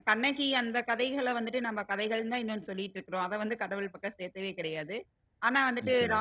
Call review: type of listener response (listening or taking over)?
listening